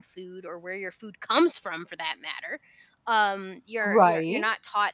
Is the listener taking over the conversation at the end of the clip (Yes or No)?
No